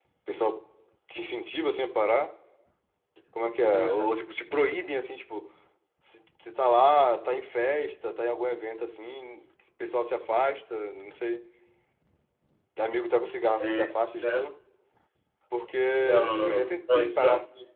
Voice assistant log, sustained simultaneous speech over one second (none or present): present